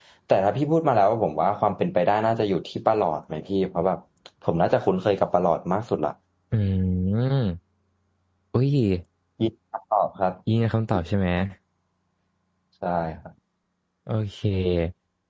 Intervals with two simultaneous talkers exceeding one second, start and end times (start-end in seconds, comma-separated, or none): none